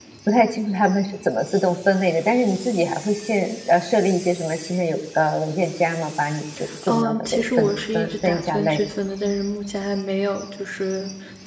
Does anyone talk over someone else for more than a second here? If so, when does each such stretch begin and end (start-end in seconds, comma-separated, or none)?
6.9-8.8